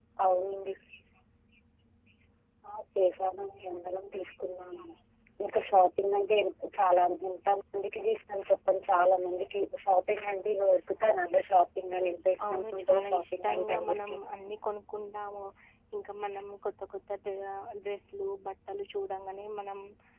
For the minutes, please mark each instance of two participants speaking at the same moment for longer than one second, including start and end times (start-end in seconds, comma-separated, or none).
12.5-14.2